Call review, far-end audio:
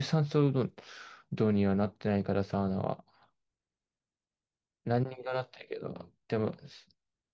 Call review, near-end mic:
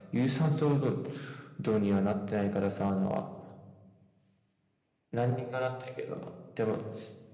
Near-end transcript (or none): none